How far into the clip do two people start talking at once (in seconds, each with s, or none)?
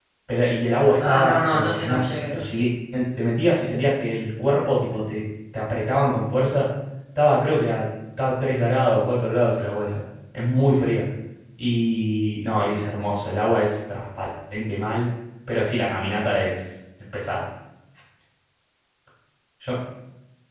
1.0 s